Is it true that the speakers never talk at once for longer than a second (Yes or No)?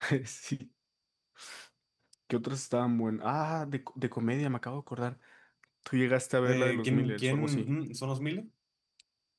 No